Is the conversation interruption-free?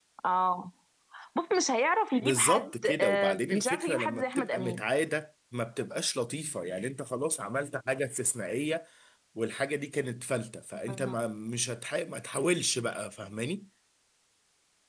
No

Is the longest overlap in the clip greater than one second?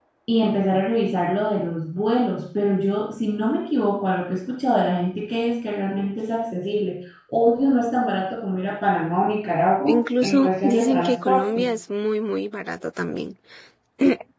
Yes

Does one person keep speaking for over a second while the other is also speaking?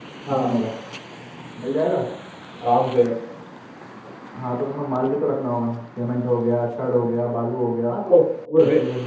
No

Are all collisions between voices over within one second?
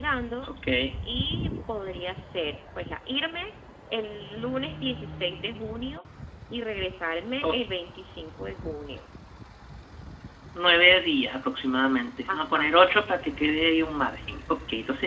Yes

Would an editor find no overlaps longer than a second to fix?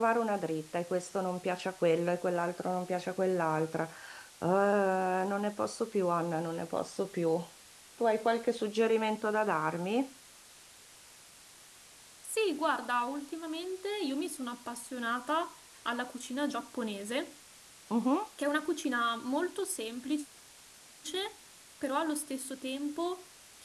Yes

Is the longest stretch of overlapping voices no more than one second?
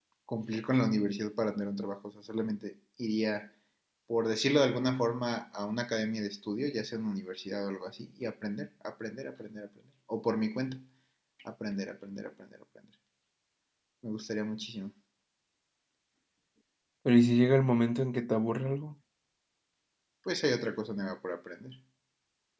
Yes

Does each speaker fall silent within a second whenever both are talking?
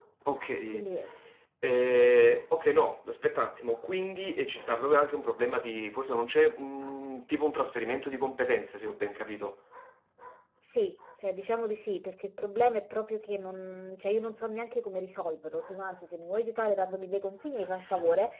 Yes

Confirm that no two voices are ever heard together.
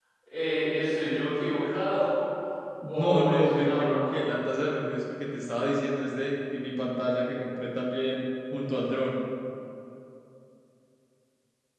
No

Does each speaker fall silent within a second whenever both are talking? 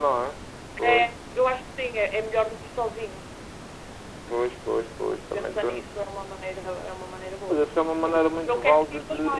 No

